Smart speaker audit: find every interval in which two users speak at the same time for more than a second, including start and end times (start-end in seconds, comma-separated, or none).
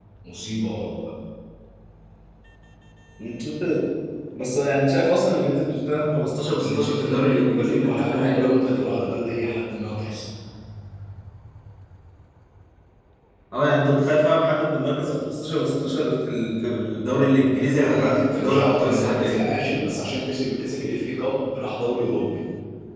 6.6-8.8, 17.4-19.4